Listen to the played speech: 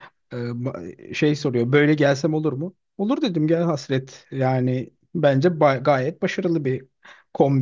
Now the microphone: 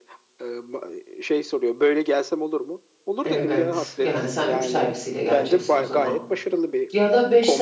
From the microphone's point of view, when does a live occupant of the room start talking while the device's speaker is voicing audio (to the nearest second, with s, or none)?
3 s